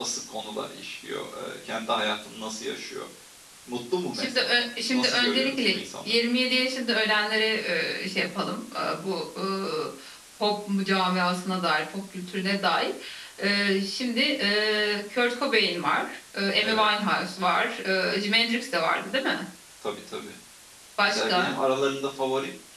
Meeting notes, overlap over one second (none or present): present